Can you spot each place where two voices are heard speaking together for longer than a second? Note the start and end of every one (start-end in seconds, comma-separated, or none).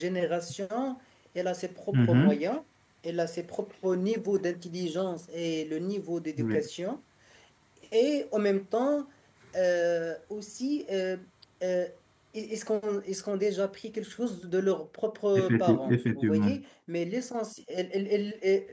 15.4-16.6